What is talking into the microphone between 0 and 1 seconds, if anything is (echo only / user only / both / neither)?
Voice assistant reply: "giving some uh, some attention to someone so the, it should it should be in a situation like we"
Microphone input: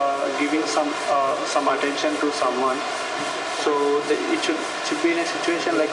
both